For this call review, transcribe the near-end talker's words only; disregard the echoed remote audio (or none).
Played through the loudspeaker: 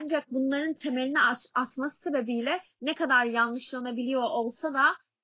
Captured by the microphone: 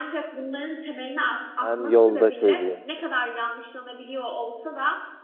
Ben yolda çözeyim.